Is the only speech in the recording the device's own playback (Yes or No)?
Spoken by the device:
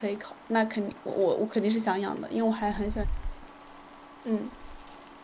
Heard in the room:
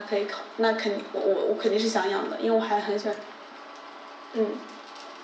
Yes